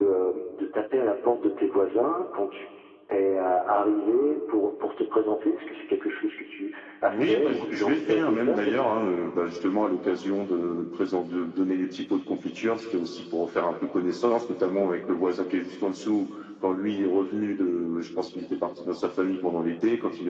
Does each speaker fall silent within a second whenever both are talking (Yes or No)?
No